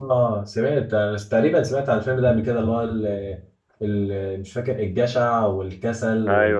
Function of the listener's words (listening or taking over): taking over